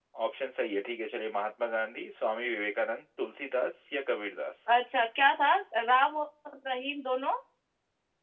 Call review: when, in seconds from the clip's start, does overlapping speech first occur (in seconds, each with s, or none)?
none